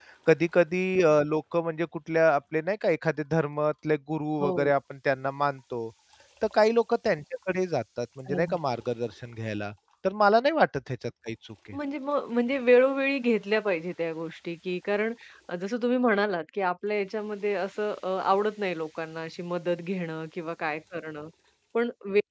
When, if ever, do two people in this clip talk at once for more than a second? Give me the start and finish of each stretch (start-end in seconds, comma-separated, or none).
none